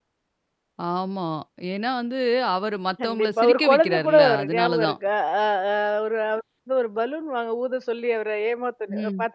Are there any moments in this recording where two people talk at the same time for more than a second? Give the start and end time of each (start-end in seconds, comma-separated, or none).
3.0-4.9